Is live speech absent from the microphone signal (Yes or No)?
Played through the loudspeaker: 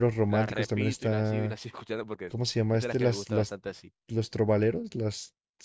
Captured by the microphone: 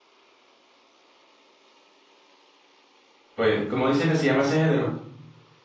No